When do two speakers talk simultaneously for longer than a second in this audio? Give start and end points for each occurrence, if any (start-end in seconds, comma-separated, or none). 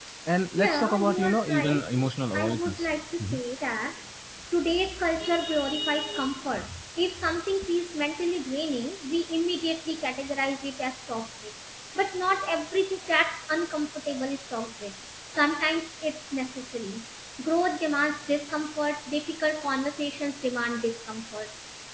0.6-1.8